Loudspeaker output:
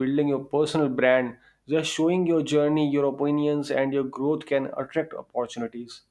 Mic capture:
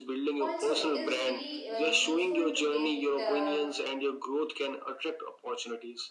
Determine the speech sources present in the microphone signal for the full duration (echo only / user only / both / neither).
both